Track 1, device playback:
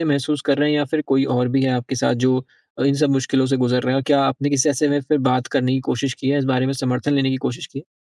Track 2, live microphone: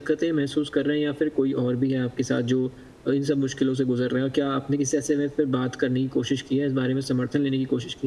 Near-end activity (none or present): none